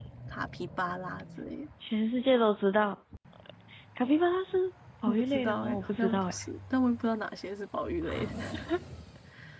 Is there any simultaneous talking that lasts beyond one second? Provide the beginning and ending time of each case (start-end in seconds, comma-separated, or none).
5.0-6.3